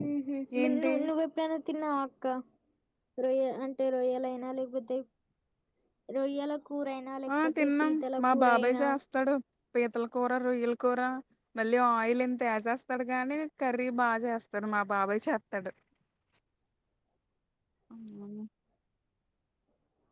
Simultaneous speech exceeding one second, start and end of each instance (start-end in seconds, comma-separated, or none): 7.4-8.8